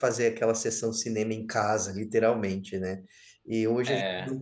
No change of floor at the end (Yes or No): Yes